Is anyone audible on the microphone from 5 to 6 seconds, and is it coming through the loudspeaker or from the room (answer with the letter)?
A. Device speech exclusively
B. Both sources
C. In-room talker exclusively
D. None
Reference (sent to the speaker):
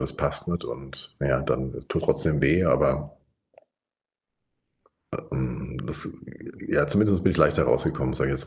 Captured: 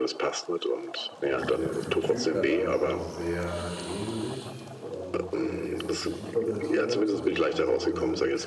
B